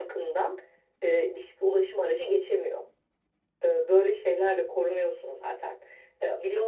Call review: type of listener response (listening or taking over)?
taking over